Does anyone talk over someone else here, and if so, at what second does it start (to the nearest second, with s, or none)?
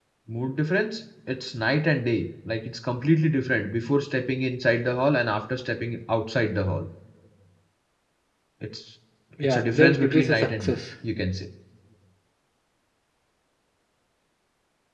9 s